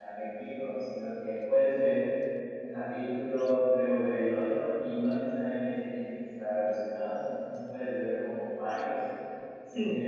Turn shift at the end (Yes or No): No